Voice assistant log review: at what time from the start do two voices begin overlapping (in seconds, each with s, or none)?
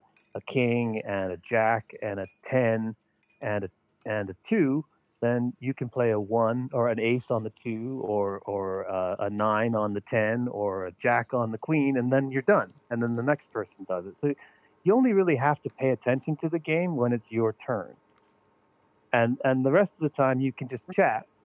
none